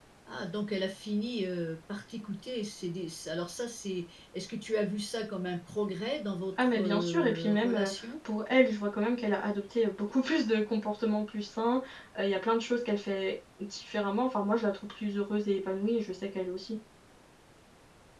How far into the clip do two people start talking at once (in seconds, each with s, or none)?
6.6 s